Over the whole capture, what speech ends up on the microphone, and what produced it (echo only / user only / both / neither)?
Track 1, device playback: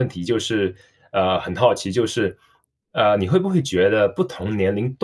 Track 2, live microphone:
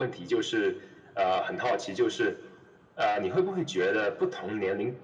echo only